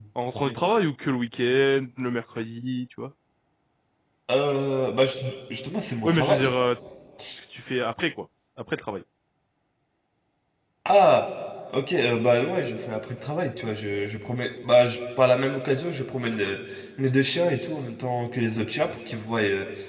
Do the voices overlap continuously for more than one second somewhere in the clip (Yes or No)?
No